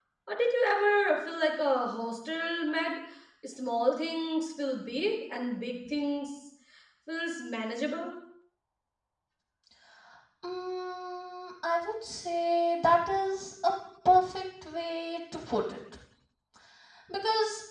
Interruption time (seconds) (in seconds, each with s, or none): none